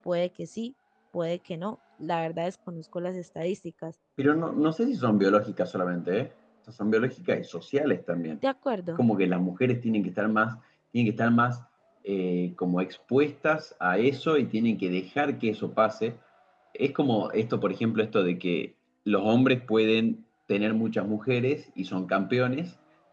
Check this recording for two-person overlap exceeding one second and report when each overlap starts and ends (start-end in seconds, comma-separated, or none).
none